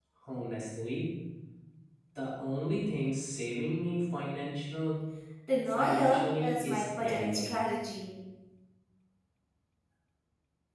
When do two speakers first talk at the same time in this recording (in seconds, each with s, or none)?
5.6 s